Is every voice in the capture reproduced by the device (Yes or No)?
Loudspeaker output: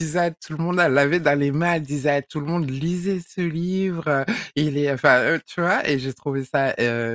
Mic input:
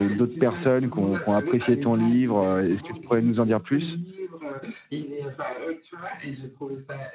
No